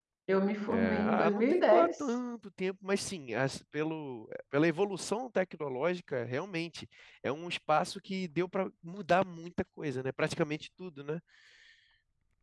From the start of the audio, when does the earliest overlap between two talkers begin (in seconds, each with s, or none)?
0.7 s